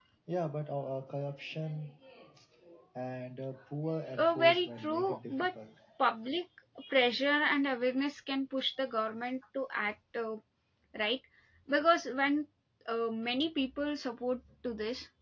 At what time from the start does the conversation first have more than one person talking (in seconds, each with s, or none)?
4.1 s